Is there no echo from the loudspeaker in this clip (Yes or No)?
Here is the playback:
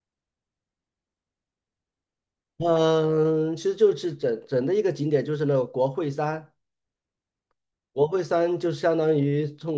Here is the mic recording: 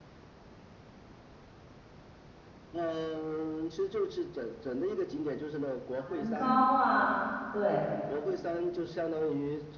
No